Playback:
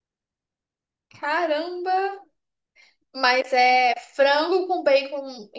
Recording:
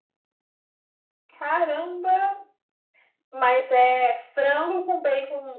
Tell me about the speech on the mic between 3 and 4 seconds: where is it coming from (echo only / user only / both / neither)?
echo only